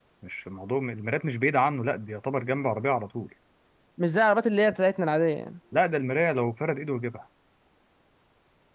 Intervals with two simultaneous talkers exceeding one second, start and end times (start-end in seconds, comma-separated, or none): none